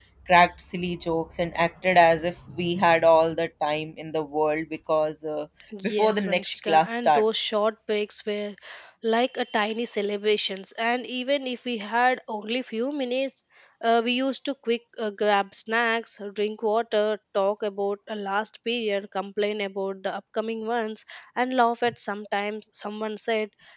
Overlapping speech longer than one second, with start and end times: 5.8-7.5

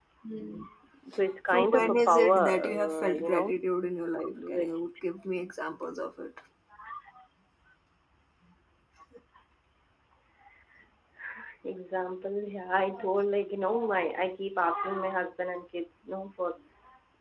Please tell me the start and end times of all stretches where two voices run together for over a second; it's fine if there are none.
1.5-3.5

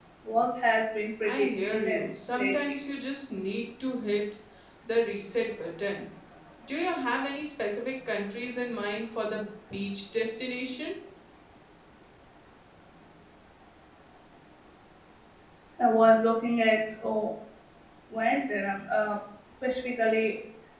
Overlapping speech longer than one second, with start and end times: 1.2-2.7

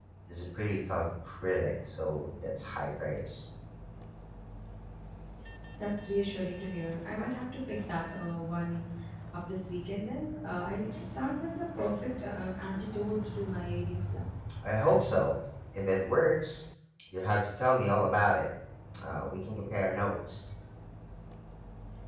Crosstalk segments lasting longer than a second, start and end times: none

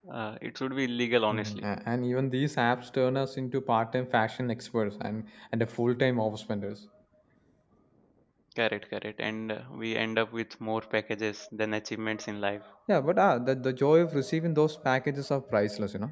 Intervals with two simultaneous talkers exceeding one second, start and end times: none

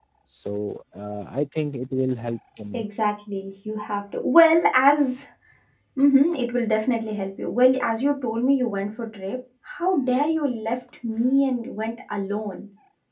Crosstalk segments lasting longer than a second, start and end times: none

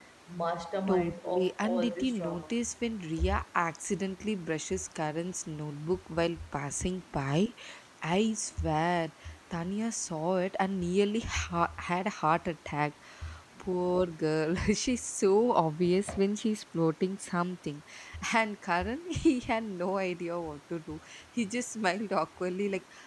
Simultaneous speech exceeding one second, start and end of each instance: 0.9-2.5

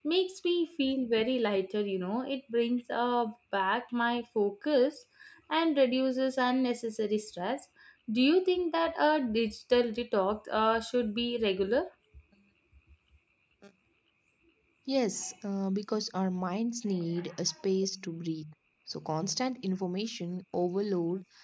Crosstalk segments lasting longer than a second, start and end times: none

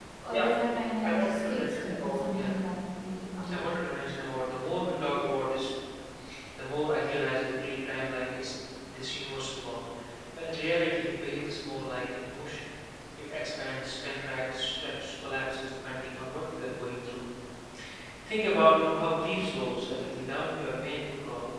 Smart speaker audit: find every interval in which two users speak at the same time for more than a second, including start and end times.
1.0-2.6

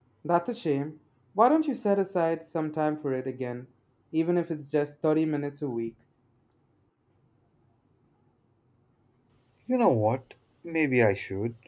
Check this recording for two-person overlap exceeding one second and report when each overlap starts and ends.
none

